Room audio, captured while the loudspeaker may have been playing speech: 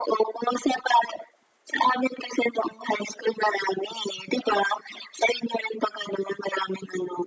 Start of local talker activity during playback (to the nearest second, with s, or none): none